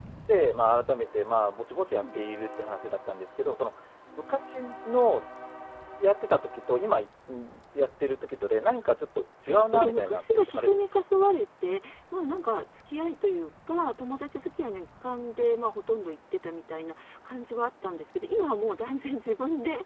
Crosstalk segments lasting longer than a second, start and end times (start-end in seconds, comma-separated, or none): 9.5-11.0